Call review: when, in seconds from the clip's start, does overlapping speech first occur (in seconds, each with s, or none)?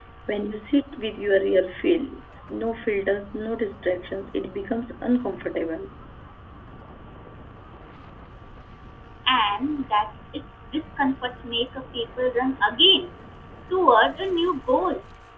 none